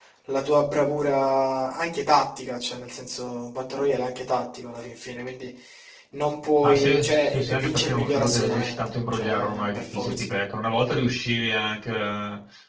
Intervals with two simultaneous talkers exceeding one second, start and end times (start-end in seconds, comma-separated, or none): 6.6-10.2